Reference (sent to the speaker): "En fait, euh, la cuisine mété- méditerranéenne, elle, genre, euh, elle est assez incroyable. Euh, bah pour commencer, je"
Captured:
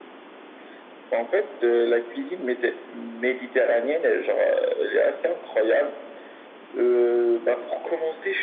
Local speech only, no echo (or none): none